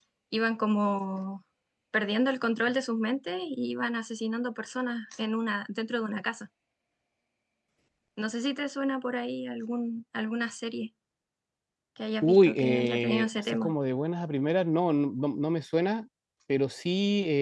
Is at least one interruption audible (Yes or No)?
Yes